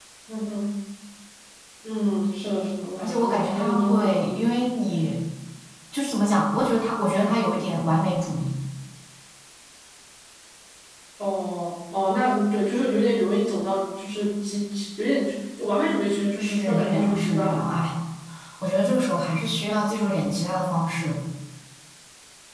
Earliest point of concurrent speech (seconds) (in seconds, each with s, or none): 3.0 s